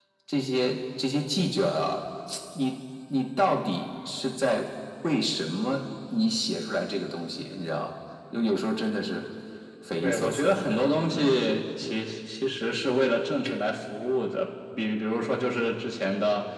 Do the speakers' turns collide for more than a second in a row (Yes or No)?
Yes